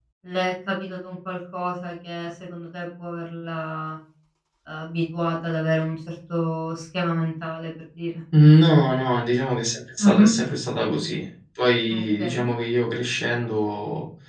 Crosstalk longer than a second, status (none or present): none